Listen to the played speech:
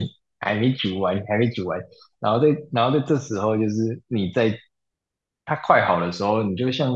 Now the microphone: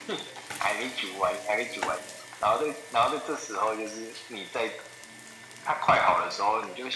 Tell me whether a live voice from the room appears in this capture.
No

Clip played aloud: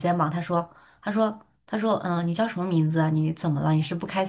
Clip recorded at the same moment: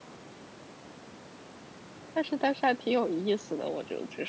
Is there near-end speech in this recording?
Yes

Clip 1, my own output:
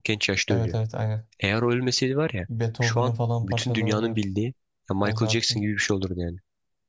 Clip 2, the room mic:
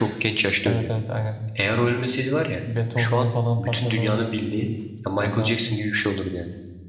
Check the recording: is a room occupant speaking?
No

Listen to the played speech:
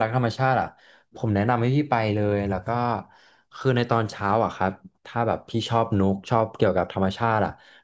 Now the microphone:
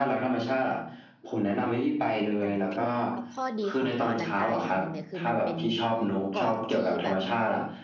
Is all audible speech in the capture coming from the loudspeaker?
No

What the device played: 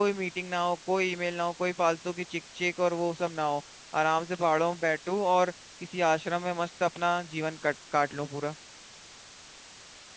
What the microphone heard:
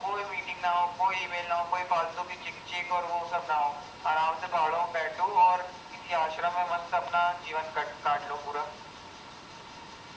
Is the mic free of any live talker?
Yes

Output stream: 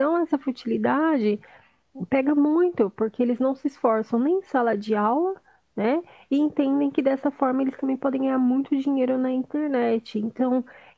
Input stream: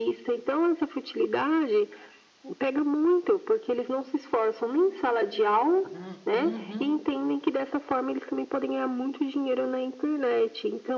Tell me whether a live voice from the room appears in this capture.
Yes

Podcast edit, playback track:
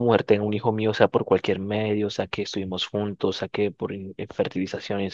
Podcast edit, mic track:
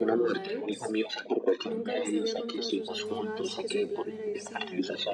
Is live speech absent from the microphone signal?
No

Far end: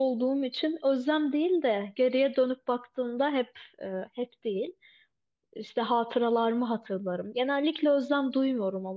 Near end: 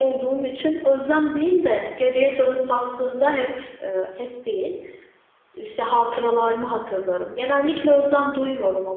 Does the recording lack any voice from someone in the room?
Yes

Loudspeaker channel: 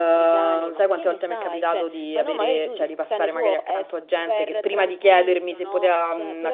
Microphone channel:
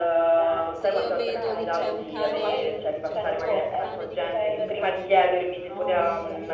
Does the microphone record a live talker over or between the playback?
Yes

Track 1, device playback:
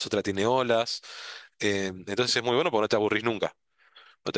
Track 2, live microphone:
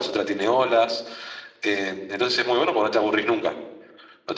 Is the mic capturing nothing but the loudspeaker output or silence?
Yes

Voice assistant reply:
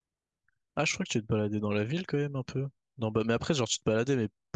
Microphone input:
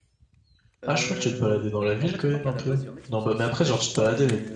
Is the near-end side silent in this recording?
No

